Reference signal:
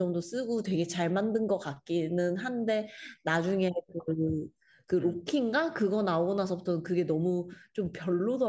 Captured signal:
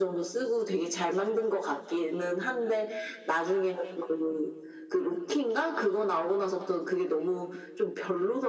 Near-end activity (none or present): none